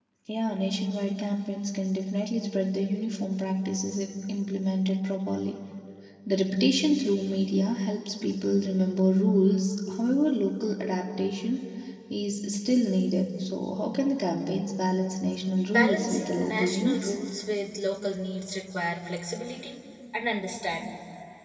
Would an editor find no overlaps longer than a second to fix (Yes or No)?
No